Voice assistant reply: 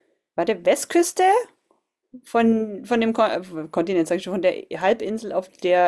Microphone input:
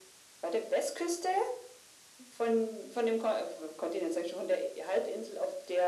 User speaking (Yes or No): No